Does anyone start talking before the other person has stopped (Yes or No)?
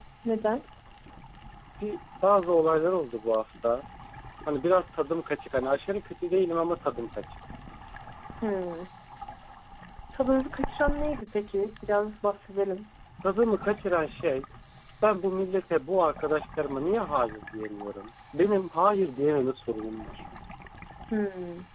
No